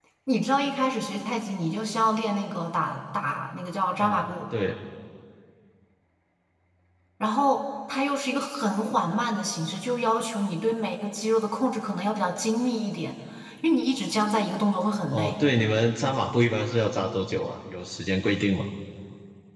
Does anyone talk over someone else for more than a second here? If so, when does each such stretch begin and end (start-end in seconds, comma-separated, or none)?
none